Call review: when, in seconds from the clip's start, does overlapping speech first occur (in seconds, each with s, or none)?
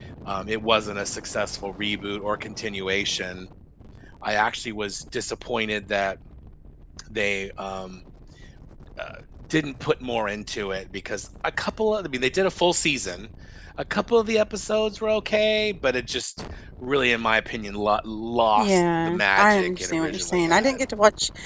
18.6 s